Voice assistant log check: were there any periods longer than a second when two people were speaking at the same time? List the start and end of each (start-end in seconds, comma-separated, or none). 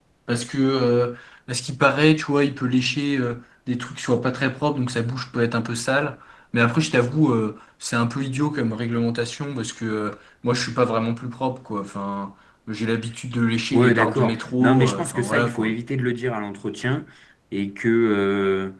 13.7-15.8